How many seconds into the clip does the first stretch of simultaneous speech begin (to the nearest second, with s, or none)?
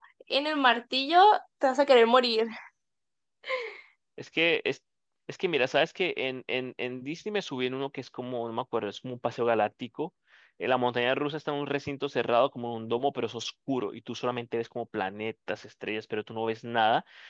none